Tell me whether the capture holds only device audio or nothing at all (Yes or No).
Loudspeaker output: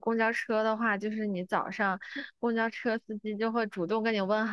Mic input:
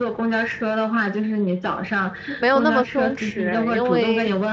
No